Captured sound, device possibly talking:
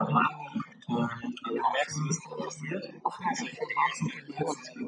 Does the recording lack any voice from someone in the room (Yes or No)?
Yes